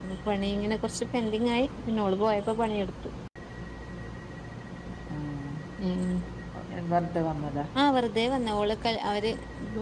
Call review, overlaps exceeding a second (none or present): none